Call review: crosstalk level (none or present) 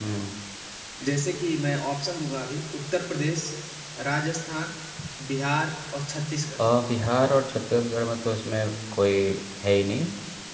none